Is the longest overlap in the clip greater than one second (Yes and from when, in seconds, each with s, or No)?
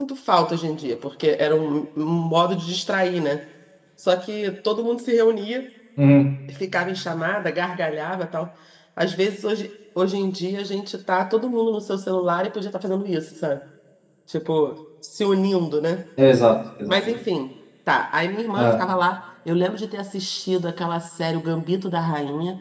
No